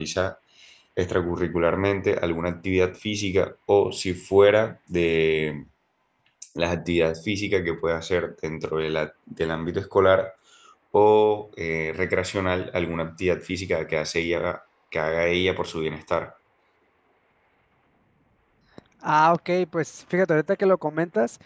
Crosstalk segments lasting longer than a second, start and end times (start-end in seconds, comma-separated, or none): none